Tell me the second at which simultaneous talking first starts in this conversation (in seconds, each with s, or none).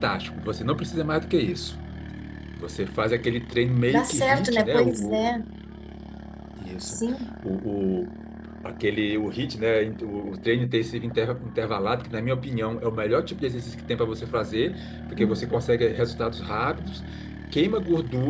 3.9 s